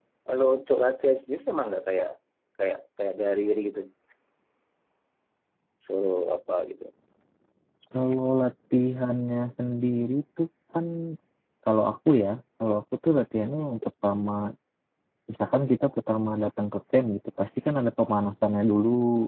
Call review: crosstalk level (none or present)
none